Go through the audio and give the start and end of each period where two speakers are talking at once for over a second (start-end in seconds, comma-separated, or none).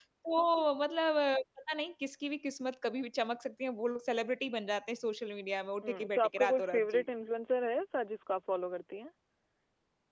5.8-7.0